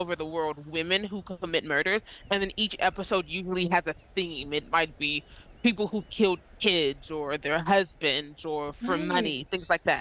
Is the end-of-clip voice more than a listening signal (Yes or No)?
No